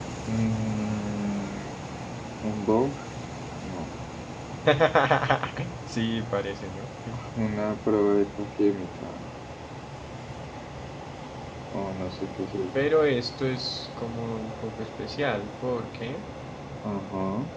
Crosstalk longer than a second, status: none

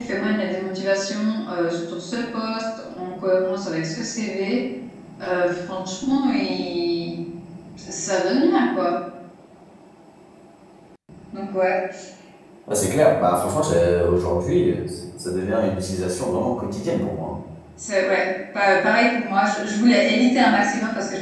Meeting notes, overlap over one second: none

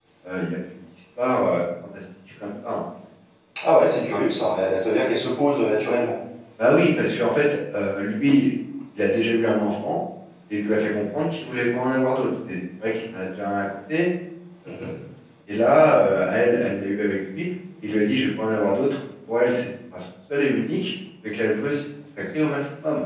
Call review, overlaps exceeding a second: none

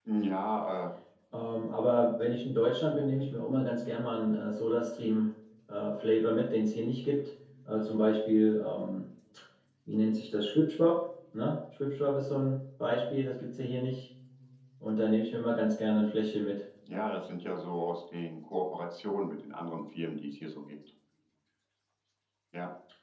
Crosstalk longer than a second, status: none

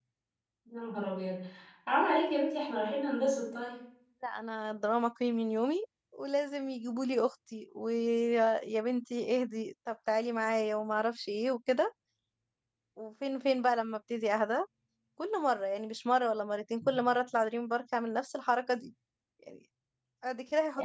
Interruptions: none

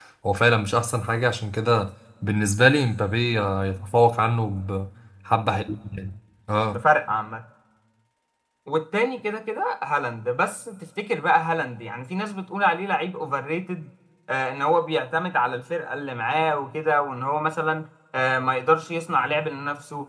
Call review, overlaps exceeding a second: none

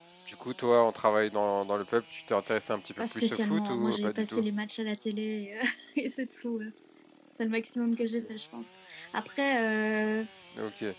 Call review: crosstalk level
present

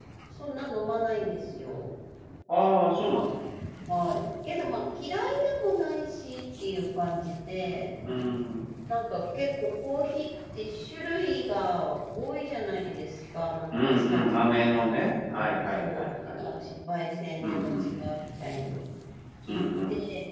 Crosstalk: present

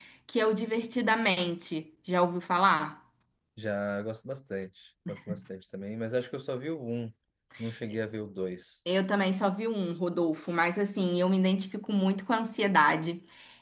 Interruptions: none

